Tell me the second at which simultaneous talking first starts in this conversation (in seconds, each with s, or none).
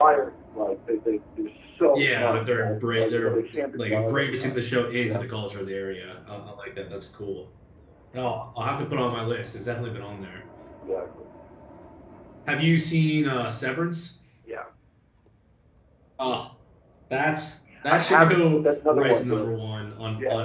1.9 s